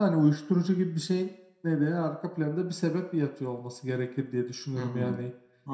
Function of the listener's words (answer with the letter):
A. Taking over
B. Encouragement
A